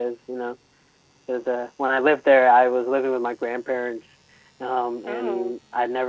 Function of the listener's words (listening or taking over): listening